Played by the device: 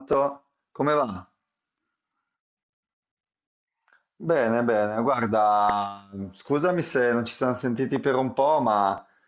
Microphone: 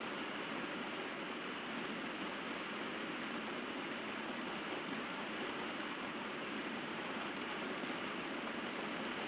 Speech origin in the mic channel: neither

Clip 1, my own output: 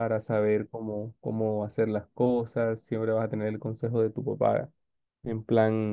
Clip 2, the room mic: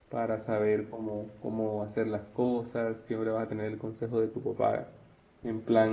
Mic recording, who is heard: echo only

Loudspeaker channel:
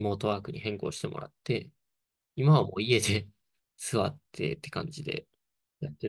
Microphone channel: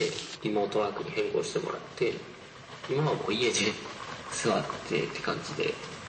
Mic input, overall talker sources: echo only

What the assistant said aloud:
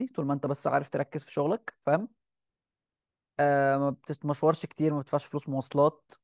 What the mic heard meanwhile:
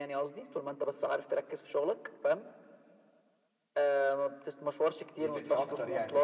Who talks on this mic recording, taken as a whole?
both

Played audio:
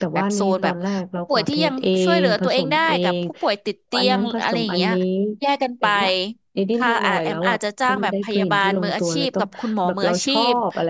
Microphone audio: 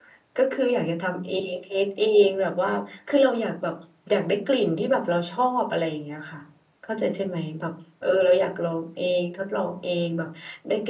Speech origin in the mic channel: user only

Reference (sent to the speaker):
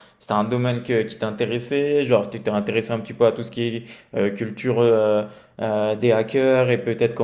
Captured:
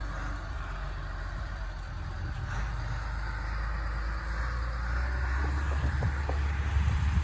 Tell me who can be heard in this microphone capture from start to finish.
neither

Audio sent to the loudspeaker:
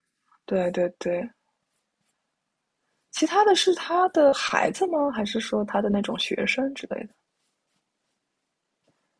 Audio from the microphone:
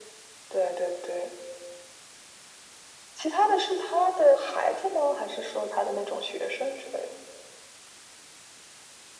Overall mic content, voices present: echo only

